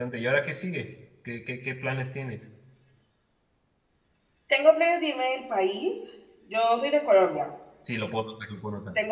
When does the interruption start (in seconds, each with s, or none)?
none